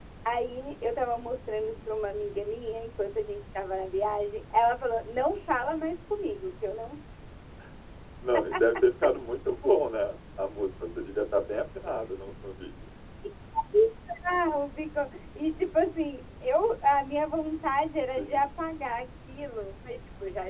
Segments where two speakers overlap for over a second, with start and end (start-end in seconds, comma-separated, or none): none